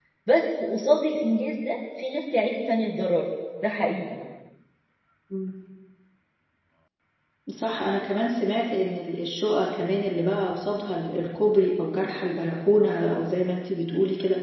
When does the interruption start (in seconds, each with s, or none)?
none